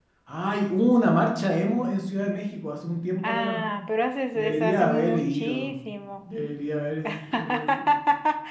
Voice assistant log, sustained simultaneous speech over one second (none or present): present